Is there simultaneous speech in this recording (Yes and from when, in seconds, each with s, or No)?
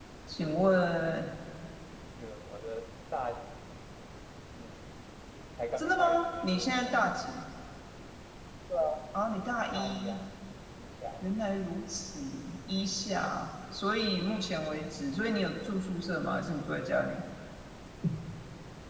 Yes, from 5.7 s